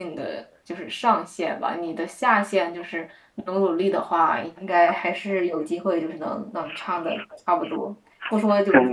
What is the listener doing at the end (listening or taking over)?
listening